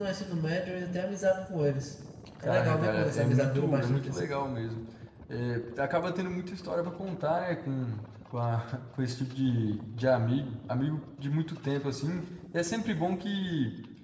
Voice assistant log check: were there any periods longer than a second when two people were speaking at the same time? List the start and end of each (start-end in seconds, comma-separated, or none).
2.4-4.3